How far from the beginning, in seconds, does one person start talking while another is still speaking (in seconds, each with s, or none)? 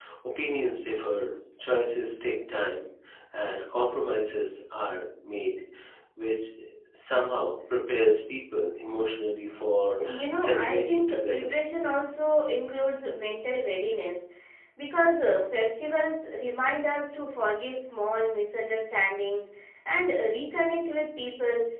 10.0 s